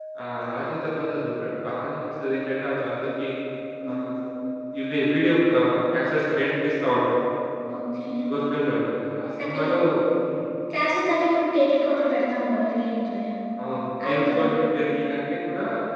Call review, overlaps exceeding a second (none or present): none